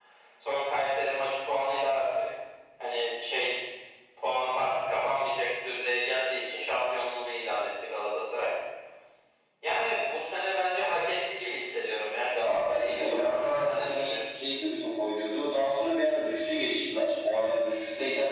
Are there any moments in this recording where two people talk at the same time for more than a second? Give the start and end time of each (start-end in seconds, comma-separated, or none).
12.4-14.2